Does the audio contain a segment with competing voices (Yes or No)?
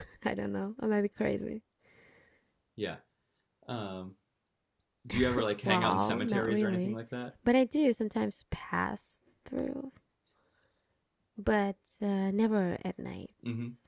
Yes